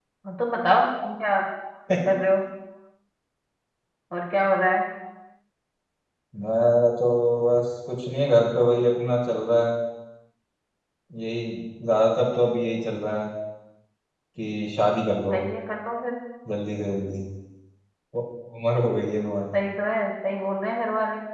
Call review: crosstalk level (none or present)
none